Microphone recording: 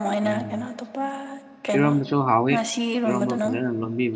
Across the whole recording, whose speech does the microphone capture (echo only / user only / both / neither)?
both